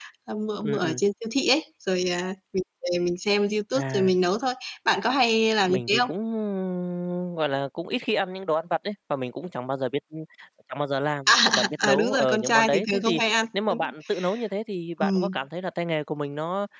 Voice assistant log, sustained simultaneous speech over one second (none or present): present